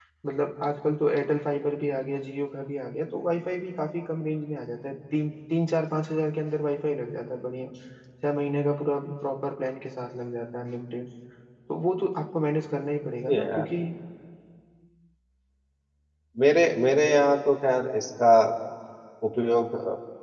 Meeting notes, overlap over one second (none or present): none